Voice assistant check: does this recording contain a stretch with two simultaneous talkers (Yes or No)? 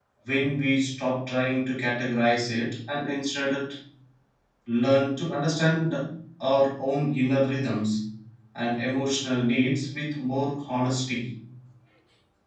No